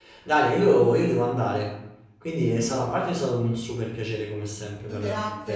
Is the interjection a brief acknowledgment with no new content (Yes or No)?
No